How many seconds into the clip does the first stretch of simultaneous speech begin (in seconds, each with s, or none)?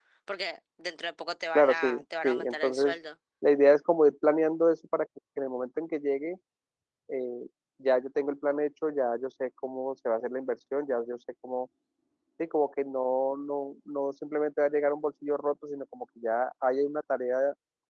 1.6 s